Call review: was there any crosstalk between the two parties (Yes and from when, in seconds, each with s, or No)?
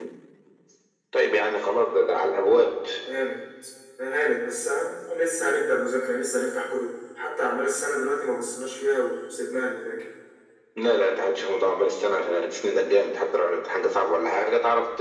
No